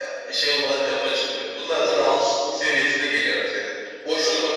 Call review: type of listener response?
listening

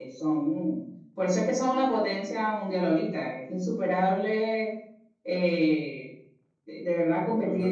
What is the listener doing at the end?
listening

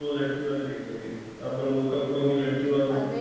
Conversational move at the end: taking over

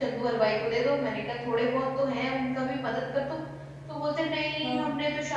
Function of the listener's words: listening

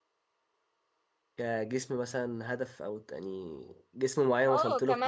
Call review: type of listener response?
taking over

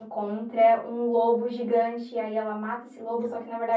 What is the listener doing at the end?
listening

